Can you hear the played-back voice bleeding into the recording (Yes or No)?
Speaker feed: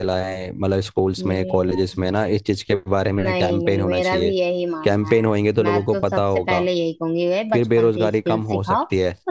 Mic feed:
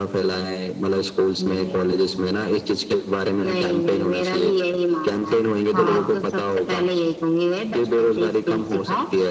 Yes